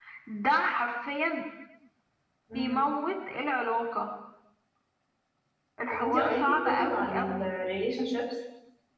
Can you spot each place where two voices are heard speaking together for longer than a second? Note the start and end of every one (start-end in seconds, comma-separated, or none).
5.9-7.5